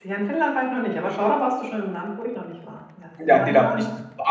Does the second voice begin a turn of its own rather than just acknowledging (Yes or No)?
Yes